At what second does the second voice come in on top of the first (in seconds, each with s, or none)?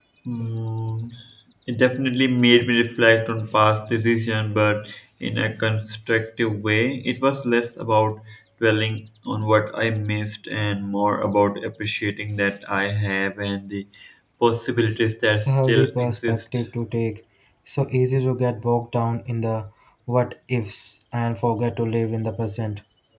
15.3 s